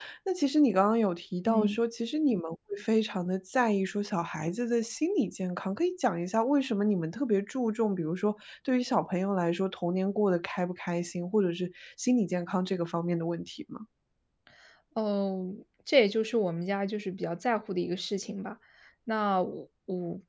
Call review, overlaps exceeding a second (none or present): none